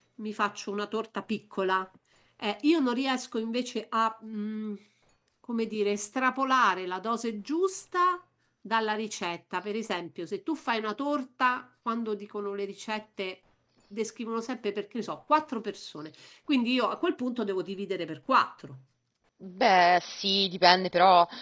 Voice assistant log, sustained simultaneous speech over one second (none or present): none